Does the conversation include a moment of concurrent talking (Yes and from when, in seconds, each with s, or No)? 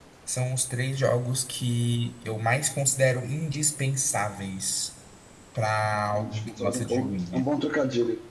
Yes, from 6.1 s